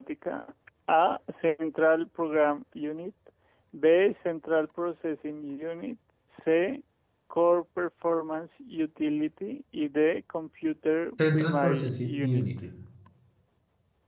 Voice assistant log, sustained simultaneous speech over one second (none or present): present